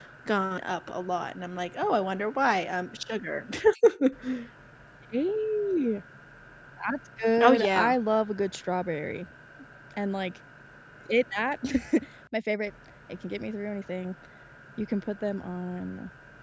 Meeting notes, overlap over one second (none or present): none